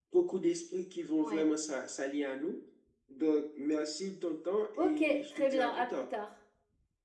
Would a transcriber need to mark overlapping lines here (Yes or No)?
Yes